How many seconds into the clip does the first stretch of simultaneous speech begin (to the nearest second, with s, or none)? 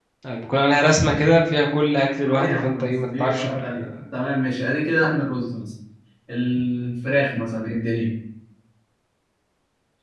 2 s